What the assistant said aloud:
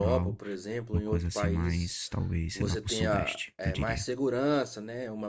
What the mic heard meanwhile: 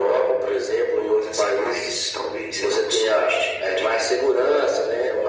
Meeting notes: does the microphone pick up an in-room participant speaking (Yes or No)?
No